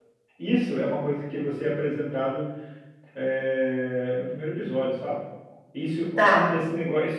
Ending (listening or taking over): listening